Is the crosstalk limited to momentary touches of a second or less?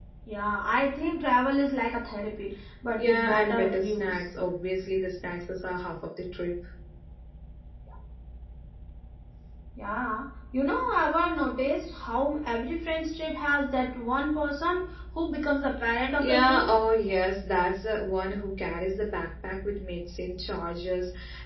No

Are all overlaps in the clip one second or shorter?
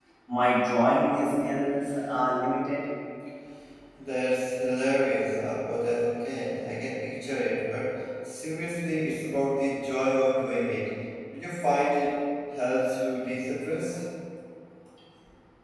Yes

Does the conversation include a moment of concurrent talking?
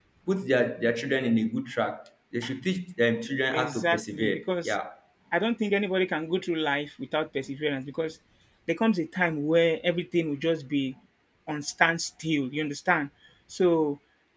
Yes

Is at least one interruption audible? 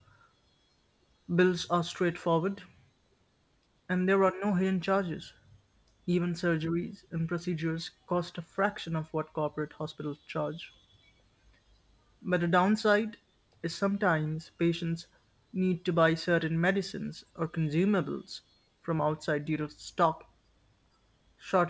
No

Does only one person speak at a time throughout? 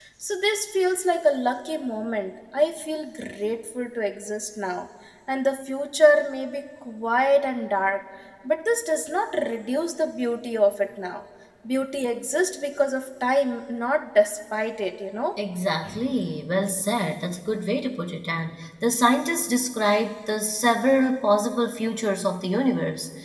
Yes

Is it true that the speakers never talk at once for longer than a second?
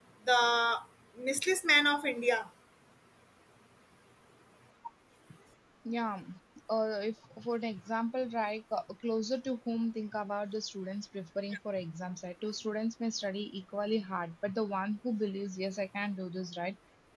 Yes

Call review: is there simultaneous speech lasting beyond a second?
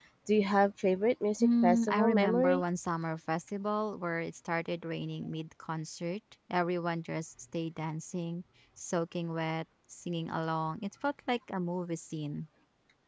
Yes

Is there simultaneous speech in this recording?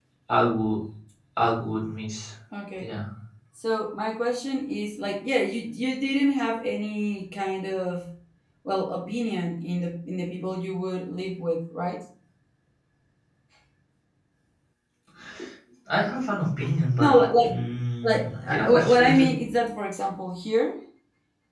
Yes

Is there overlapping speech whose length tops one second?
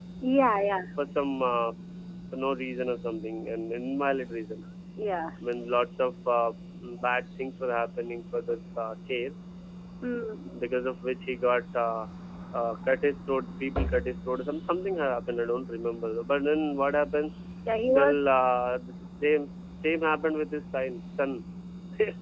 No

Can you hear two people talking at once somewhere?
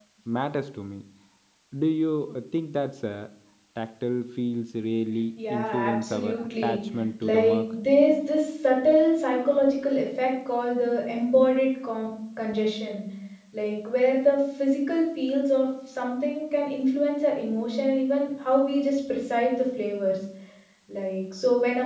Yes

